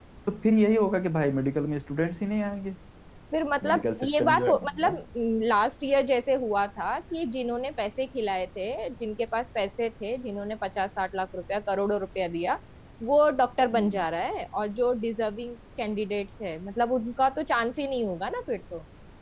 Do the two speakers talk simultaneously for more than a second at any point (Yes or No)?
Yes